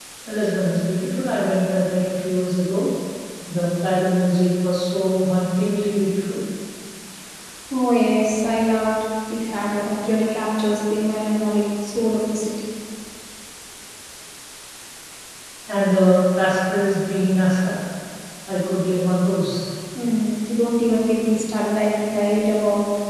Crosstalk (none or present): none